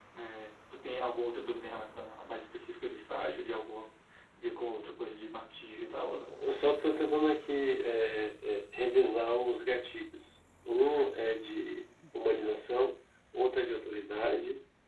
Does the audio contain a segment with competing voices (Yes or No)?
No